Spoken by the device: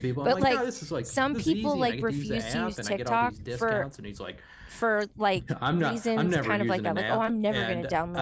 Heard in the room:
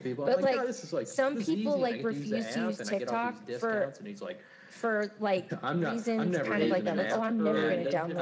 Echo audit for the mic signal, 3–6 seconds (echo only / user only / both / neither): echo only